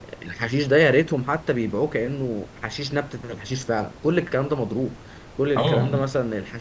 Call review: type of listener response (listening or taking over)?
listening